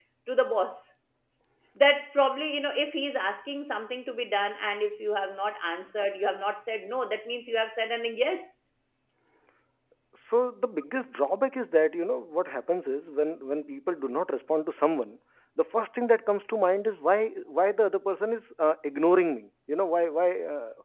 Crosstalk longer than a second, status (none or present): none